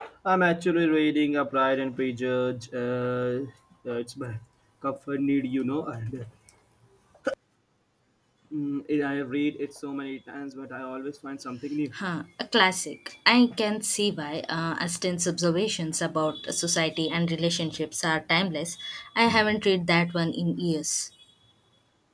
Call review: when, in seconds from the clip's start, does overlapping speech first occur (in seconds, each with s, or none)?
none